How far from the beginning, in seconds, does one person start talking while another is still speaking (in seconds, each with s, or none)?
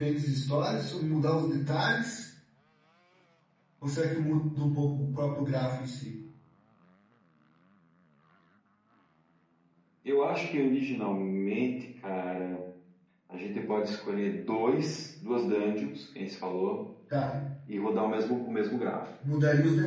none